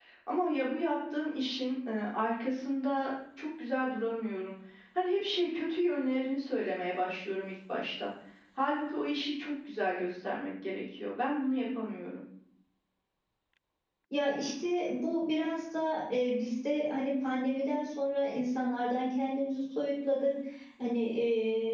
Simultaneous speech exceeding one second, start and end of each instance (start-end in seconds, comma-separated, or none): none